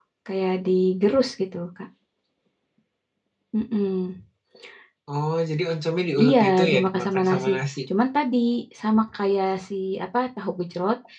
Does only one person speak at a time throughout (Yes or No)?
No